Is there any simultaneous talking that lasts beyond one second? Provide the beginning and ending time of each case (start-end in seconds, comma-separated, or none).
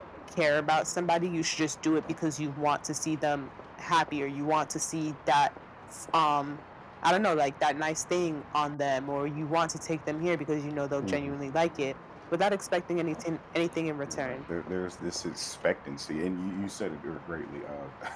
none